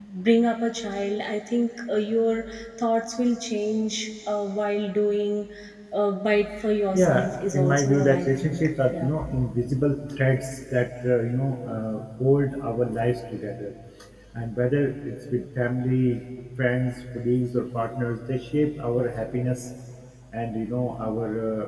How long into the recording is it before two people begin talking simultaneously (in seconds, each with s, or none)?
6.9 s